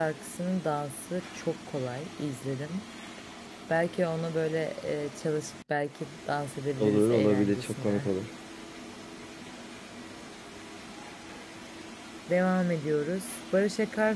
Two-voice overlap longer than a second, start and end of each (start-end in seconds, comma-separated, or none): 6.8-8.1